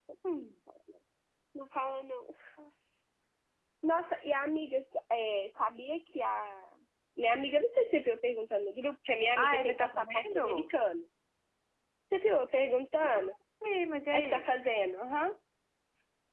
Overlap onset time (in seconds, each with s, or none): 9.4 s